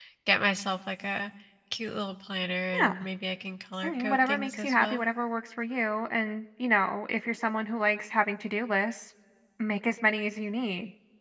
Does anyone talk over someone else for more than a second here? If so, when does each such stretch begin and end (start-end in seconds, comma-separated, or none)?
3.8-5.0